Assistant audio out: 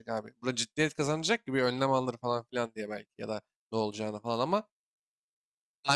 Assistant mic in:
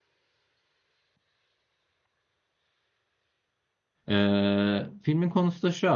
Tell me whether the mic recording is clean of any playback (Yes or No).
Yes